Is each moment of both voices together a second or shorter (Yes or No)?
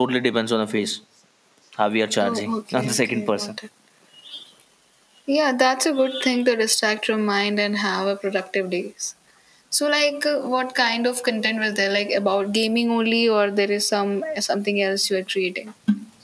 No